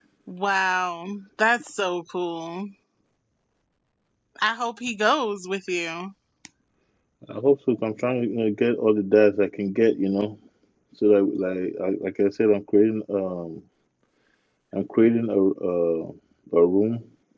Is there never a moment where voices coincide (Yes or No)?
Yes